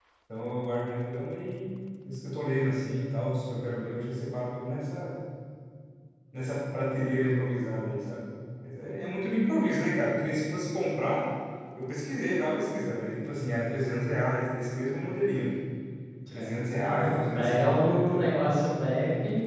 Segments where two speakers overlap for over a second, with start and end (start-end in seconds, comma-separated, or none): 16.3-18.3